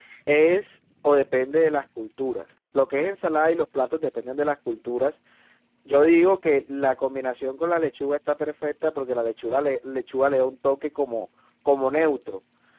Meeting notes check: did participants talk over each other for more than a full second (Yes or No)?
No